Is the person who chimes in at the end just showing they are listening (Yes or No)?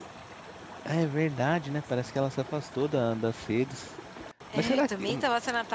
No